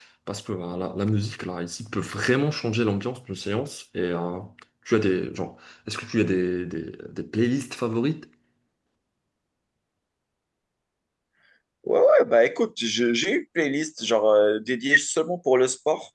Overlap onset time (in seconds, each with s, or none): none